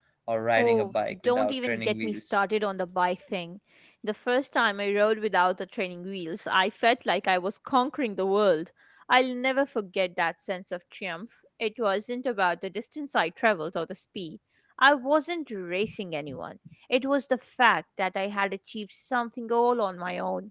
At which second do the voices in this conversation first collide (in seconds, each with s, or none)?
0.6 s